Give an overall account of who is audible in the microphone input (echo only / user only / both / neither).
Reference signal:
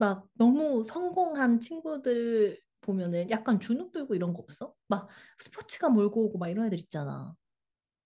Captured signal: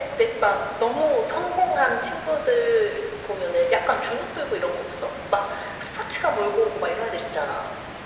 echo only